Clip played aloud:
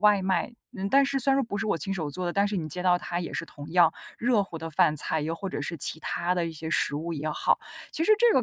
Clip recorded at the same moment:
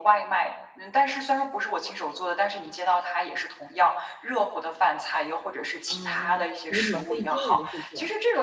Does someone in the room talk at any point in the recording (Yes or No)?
Yes